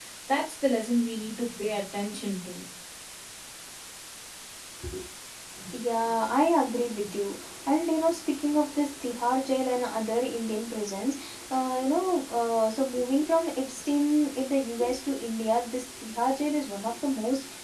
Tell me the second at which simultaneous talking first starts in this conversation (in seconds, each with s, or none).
none